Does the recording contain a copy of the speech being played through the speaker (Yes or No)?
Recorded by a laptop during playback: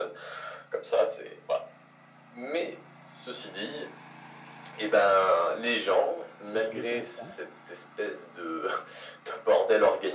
Yes